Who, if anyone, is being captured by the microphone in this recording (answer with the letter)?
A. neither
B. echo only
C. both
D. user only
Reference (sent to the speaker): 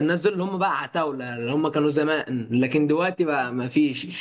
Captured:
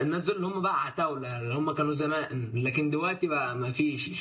B